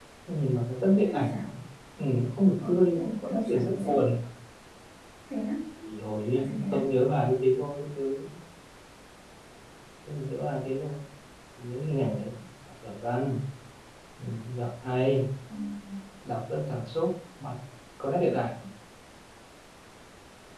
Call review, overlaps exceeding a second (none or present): present